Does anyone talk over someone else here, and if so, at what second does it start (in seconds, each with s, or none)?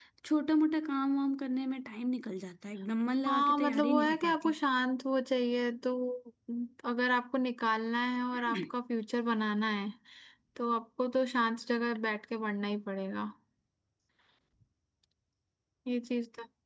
3.3 s